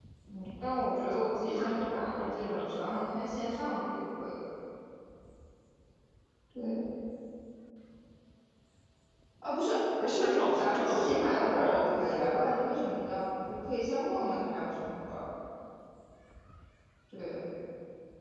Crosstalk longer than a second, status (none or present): present